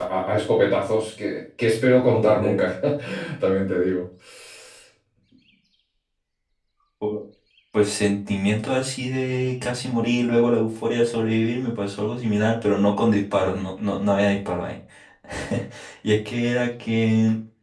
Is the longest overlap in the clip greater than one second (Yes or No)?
No